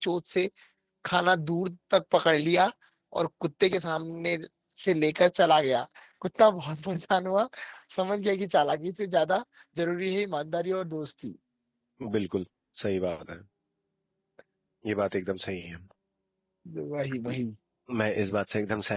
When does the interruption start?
none

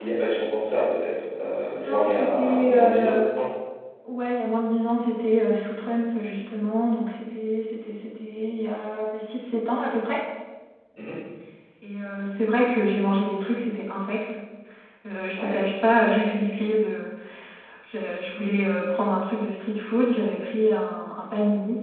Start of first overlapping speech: 2 s

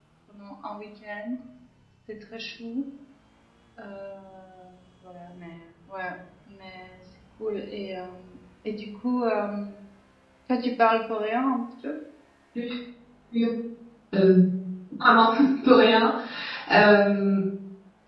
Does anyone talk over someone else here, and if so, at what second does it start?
none

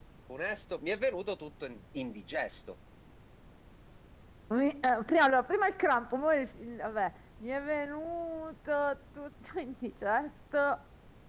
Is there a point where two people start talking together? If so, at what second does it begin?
none

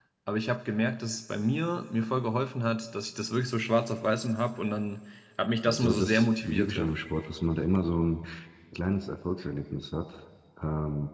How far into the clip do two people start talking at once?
6 s

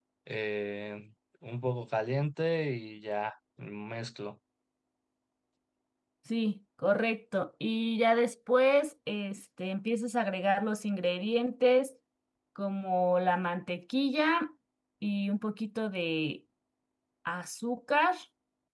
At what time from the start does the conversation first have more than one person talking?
none

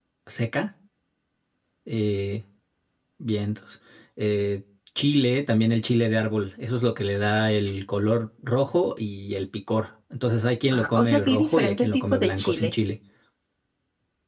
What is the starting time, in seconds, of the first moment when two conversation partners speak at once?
11 s

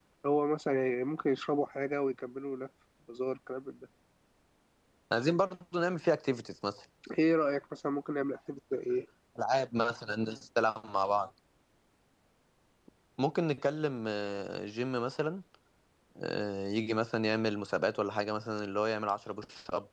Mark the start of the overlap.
none

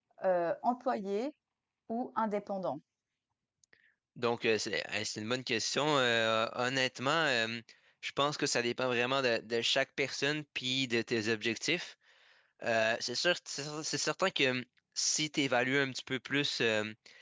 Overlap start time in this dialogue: none

